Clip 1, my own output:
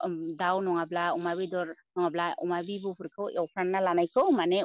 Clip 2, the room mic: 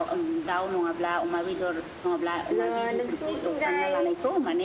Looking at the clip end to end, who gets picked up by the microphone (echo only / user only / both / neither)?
both